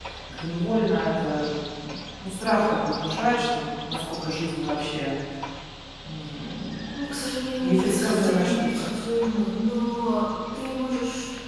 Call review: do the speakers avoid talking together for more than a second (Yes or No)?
No